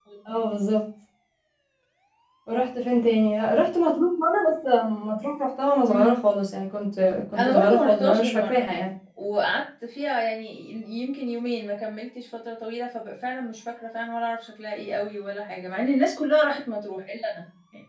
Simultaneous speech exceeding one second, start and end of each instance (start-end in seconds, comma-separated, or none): 7.4-8.6